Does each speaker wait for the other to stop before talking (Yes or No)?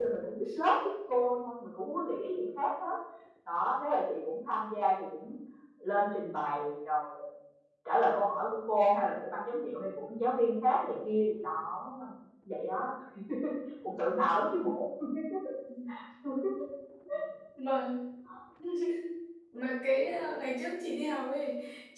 Yes